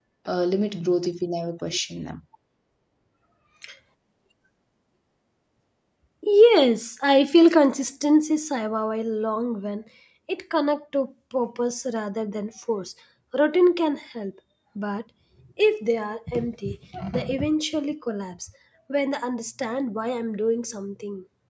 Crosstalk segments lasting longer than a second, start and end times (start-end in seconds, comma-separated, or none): none